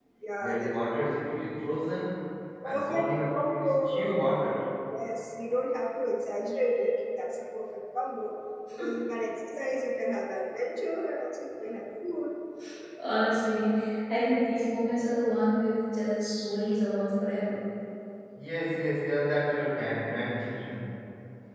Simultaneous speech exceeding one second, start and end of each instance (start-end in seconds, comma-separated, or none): 2.6-4.2